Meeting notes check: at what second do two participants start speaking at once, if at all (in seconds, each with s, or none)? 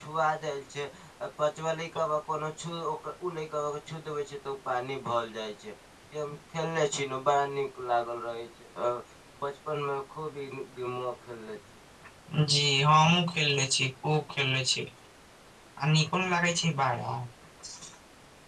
none